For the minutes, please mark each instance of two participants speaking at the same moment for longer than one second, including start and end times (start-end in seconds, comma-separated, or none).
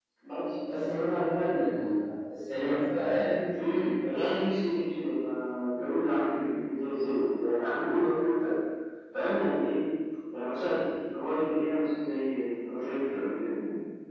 none